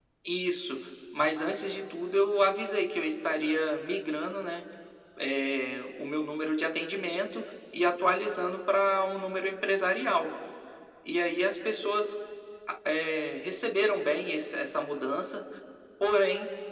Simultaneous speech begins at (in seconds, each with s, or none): none